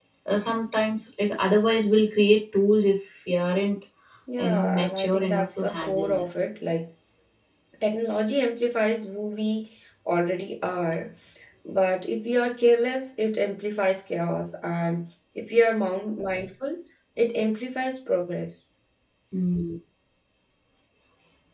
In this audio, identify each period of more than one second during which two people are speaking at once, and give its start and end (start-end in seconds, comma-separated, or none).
4.4-6.2